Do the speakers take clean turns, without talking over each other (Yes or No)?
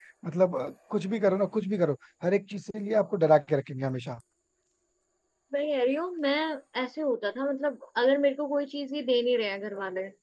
Yes